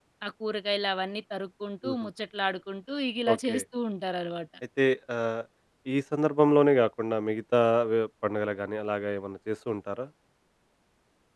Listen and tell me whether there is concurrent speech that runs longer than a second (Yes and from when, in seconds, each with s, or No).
No